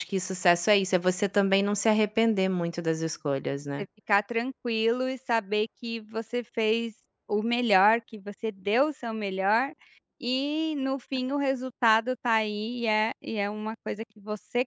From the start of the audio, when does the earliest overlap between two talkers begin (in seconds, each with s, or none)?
none